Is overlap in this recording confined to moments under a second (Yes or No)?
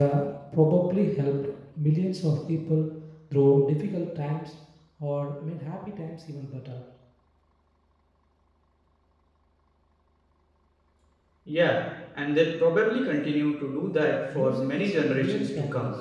No